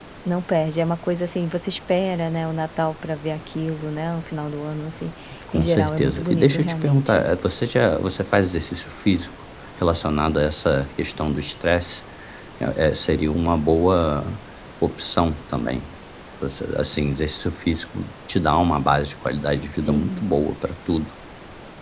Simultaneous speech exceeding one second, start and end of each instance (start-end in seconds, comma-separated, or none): 5.5-7.2